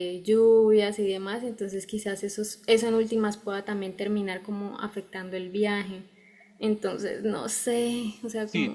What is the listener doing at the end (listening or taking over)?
taking over